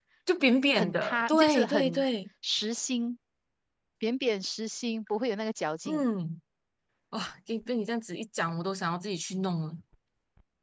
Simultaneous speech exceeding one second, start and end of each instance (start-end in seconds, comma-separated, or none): 0.7-2.0